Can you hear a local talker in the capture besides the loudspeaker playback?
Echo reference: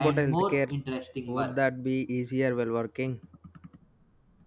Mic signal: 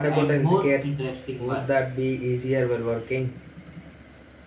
No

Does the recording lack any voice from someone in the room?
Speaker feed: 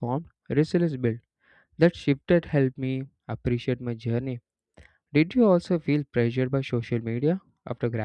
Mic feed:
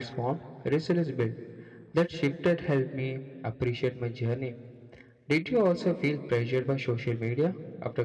Yes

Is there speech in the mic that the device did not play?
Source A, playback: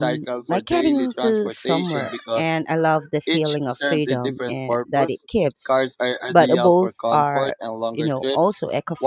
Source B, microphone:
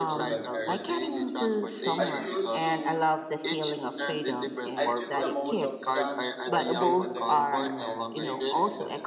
Yes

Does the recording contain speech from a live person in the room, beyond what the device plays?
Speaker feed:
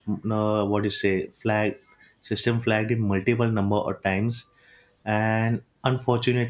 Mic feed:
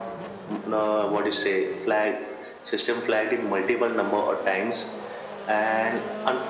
No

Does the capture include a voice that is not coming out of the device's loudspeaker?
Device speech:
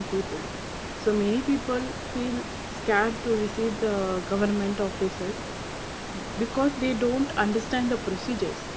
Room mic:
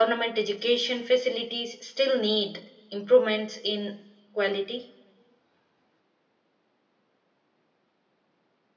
Yes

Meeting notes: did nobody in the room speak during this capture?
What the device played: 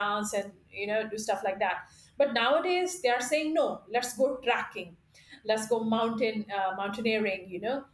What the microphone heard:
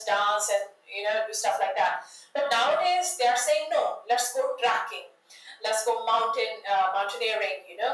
Yes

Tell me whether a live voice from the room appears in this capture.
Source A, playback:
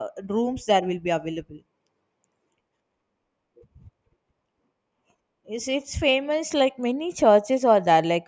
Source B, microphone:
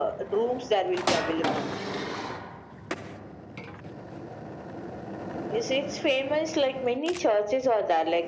No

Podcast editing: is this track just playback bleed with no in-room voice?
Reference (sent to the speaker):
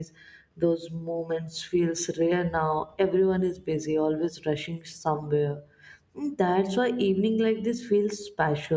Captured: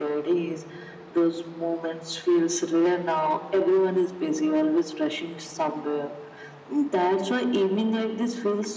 Yes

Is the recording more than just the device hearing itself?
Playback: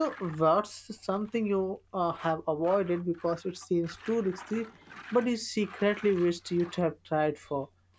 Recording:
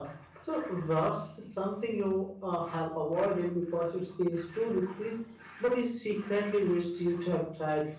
No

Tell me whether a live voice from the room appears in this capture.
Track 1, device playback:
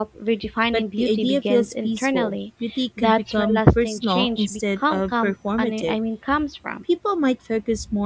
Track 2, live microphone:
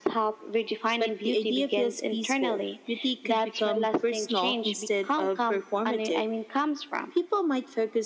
No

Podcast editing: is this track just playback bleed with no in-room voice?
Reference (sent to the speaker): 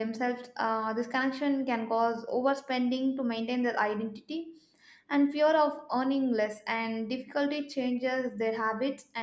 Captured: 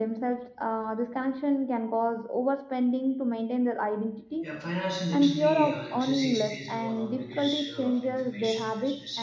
No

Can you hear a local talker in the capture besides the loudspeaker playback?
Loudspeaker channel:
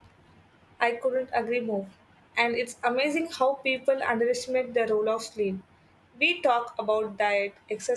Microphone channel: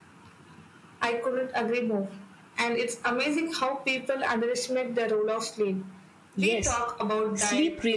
Yes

